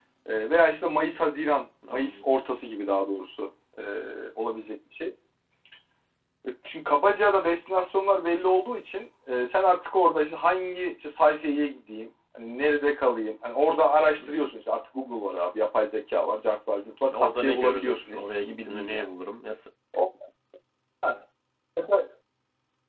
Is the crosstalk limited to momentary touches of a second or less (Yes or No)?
No